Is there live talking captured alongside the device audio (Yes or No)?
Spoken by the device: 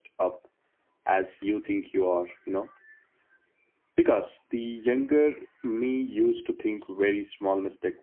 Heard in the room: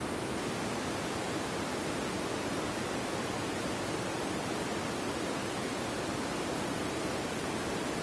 No